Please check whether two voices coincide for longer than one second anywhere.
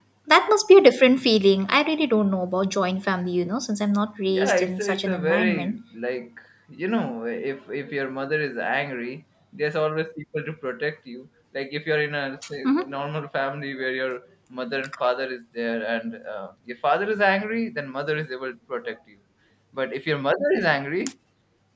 Yes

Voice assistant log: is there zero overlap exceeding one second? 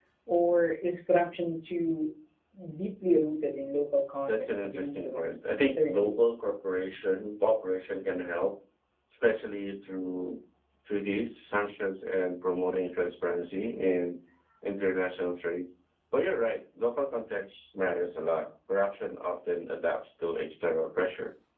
No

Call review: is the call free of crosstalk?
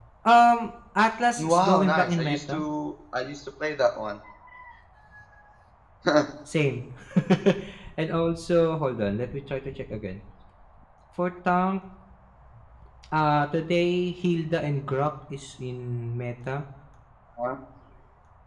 No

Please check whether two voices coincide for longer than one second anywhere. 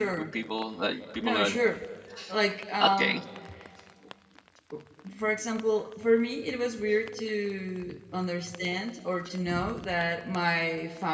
No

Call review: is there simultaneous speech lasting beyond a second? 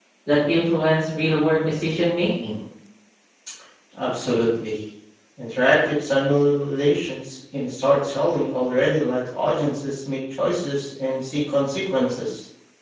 No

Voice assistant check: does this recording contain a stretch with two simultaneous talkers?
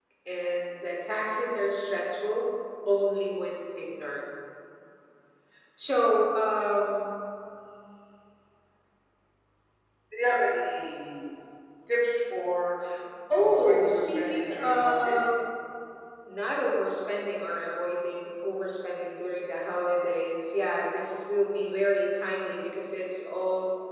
Yes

